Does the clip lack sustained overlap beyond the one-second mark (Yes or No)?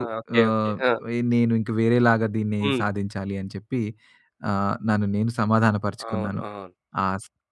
Yes